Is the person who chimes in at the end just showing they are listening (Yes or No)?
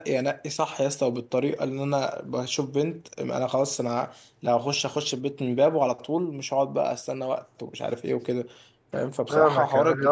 No